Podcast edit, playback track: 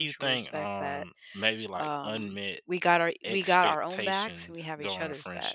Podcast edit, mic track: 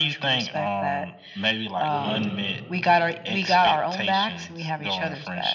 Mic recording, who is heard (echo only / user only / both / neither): both